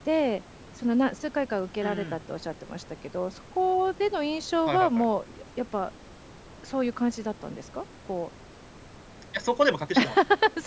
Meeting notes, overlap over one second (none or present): none